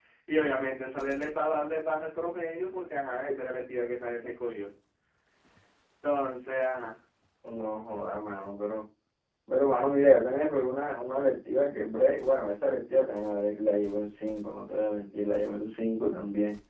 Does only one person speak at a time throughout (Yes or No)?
Yes